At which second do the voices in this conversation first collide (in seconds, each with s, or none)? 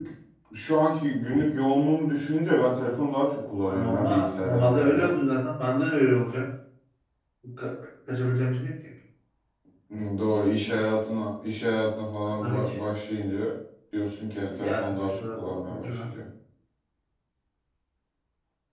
3.7 s